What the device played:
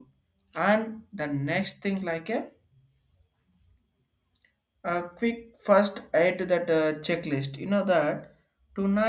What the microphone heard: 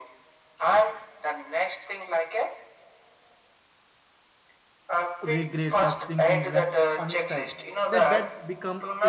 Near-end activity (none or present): present